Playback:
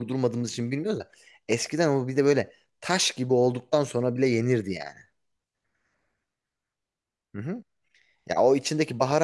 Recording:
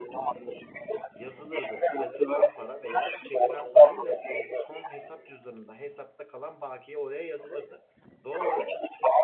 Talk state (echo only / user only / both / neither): both